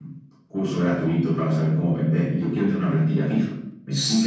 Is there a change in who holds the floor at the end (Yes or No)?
Yes